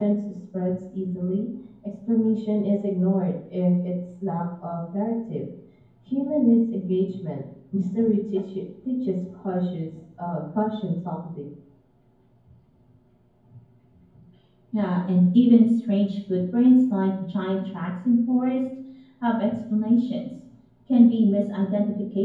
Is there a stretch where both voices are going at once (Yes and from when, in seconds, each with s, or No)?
No